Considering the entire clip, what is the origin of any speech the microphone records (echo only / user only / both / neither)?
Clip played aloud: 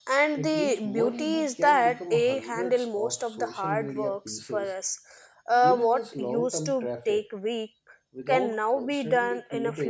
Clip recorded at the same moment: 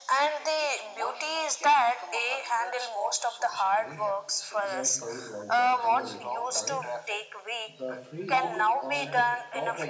both